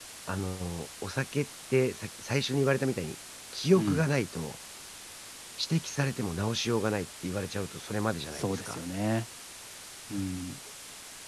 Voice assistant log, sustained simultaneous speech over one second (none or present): none